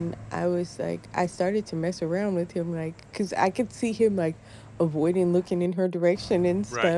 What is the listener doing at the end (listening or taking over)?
listening